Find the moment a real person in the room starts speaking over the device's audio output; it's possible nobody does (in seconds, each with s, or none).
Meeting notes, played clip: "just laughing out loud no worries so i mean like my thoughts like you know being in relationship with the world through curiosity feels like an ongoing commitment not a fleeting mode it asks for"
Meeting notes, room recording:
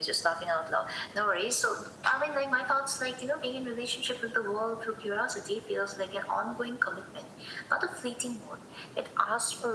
none